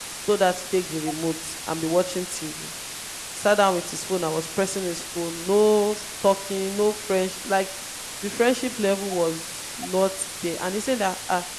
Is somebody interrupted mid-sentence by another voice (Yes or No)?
No